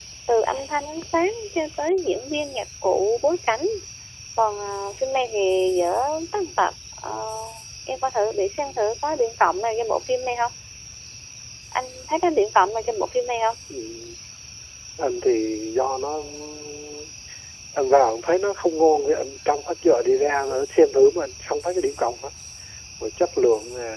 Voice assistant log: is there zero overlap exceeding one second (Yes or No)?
Yes